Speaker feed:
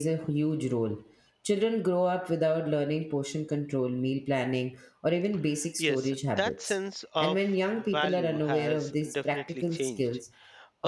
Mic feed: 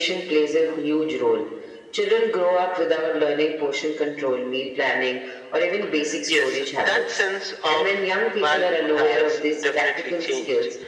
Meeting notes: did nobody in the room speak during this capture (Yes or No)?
Yes